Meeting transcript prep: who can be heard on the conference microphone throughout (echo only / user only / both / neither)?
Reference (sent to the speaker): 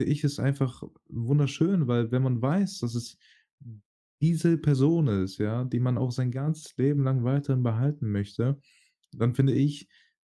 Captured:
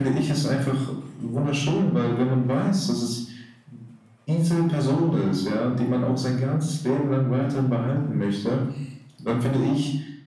echo only